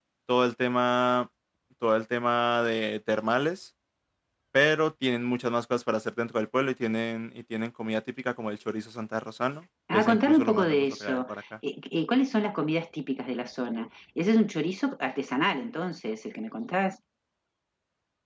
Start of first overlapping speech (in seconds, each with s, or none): 9.9 s